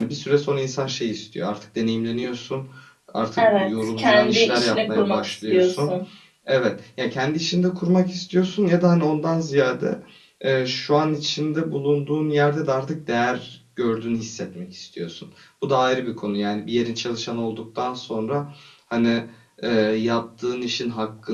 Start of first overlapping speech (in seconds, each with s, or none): 3.4 s